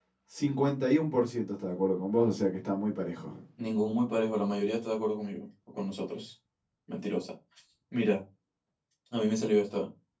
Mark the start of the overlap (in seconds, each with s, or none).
none